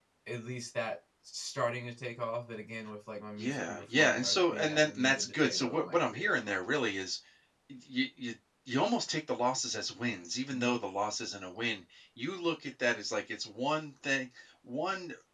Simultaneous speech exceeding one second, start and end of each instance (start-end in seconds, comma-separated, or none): 3.4-6.7